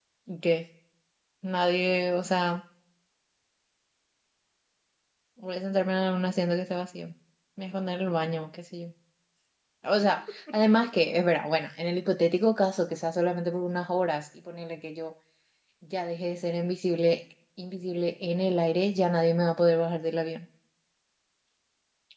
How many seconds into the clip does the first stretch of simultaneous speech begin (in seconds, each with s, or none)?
none